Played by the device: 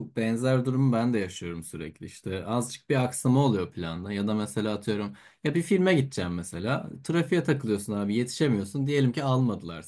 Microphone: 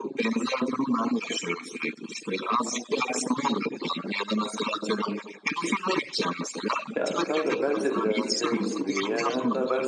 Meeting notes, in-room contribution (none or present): present